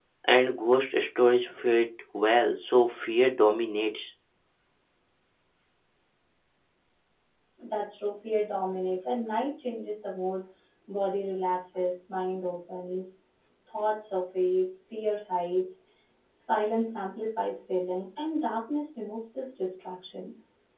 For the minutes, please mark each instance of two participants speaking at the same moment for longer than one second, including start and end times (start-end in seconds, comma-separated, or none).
none